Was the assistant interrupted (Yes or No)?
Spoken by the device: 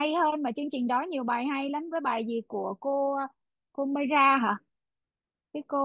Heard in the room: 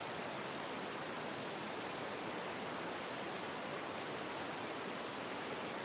No